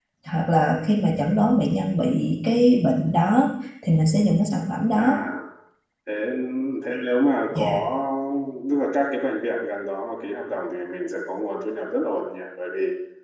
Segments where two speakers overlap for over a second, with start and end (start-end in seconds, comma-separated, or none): none